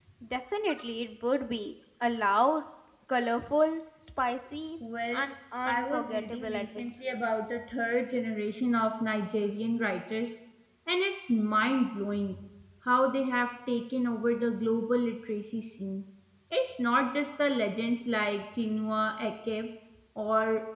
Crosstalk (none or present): present